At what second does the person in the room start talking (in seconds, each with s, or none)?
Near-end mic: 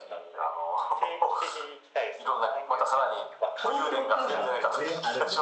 3.6 s